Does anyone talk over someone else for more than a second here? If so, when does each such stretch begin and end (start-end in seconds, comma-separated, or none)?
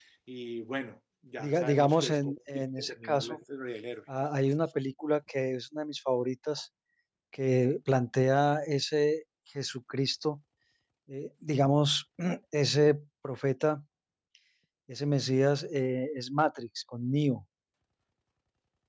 1.4-3.4